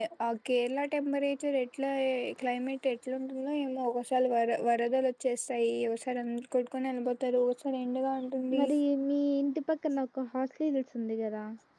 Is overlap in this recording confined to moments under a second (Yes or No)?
Yes